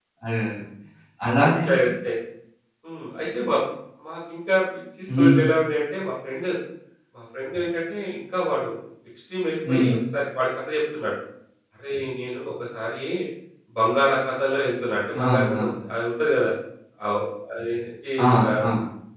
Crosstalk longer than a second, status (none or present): none